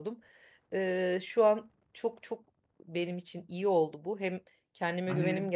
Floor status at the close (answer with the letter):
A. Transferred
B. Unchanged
A